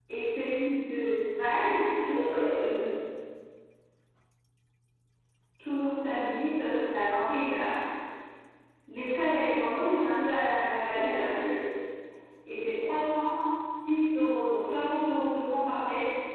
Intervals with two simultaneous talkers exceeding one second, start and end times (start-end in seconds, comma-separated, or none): none